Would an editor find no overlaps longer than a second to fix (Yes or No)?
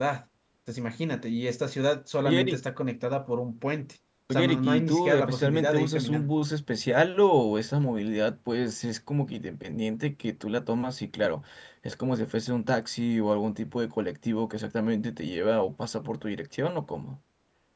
No